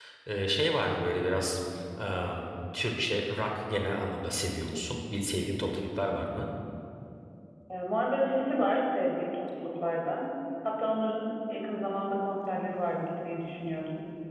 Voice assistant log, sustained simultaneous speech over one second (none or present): none